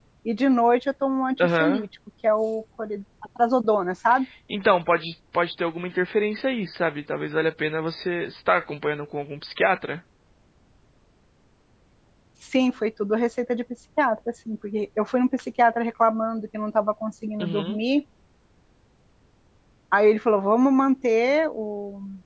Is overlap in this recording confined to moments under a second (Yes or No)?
Yes